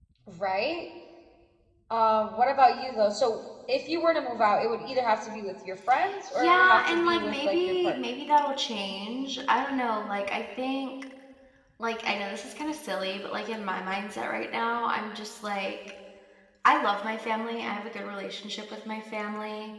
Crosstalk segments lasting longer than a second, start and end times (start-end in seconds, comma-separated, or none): 6.3-8.0